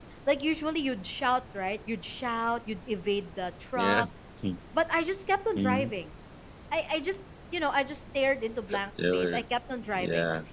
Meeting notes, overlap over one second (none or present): none